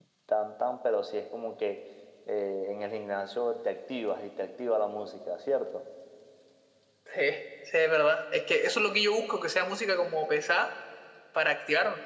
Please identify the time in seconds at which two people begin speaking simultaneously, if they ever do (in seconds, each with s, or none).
none